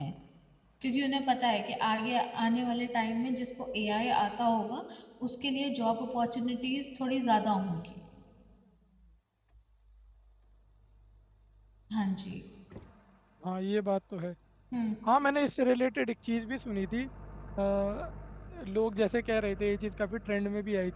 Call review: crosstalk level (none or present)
none